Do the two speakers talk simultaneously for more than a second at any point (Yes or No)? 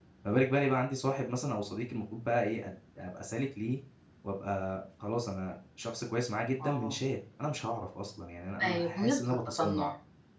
Yes